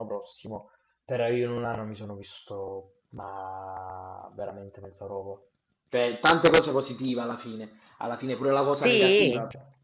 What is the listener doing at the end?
listening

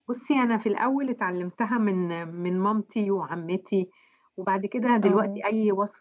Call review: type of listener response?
listening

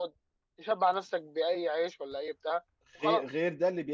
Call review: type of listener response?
taking over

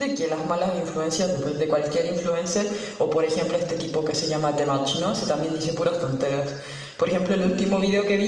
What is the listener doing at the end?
listening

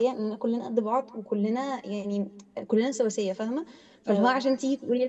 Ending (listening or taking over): listening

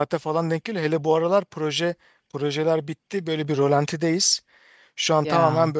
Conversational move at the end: listening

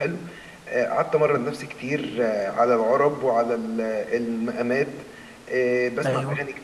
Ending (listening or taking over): listening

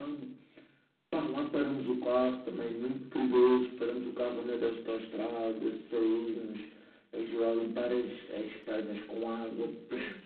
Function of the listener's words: listening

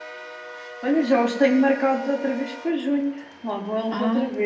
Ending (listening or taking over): taking over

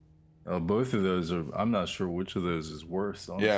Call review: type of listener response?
taking over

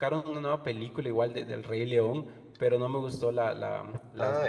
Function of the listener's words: taking over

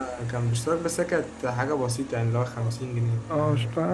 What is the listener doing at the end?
taking over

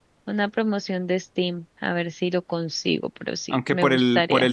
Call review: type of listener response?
taking over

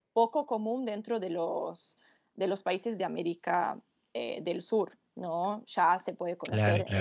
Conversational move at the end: listening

